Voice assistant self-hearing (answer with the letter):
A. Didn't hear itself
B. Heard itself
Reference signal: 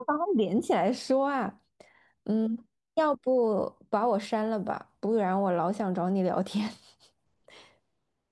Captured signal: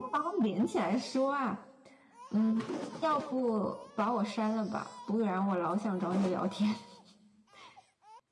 B